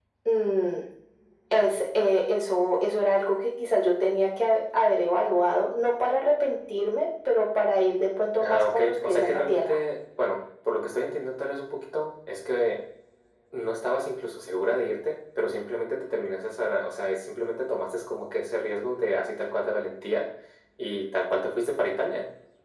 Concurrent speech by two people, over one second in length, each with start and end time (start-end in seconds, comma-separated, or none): 8.4-9.8